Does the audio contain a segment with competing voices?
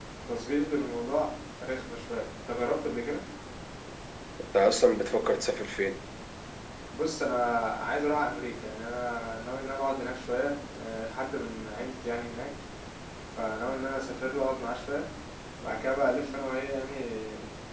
No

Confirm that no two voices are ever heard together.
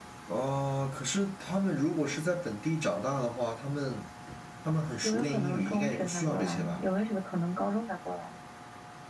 No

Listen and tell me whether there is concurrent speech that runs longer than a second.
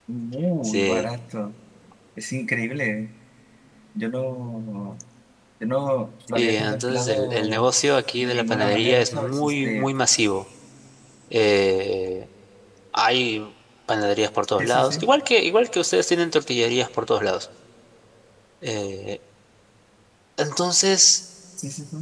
Yes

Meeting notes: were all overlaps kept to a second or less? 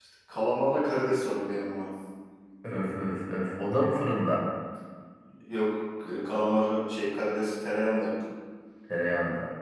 Yes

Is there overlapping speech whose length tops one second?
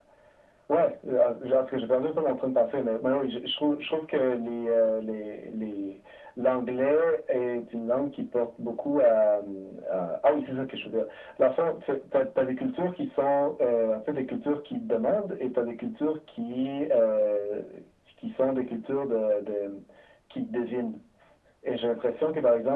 No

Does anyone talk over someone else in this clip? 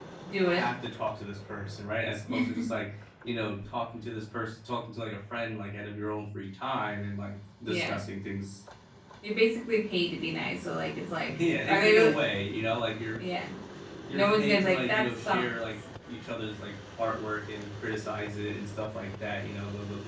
Yes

